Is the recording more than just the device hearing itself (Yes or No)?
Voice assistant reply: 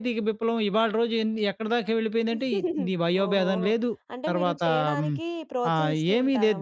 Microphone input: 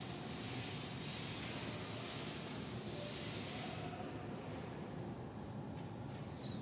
No